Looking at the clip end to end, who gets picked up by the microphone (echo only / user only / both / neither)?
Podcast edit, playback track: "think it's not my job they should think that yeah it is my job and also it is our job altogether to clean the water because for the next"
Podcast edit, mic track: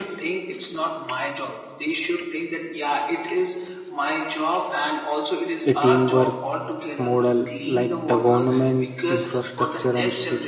both